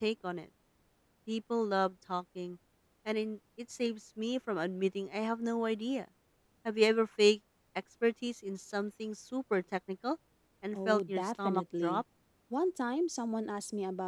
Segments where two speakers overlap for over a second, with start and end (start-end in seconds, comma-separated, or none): 10.7-12.0